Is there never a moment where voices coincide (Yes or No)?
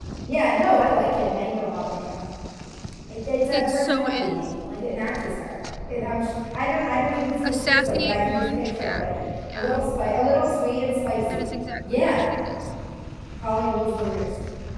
No